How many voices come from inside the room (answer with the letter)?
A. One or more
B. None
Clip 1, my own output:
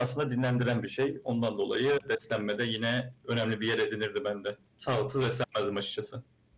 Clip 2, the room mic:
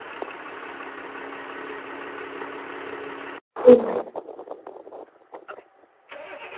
A